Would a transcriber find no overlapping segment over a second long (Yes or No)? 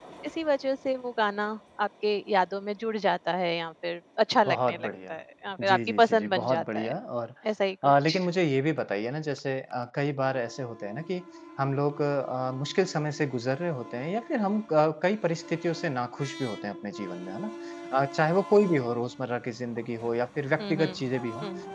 No